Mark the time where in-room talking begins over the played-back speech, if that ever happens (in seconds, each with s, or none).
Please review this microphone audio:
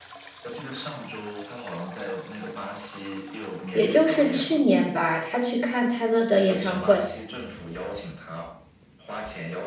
3.7 s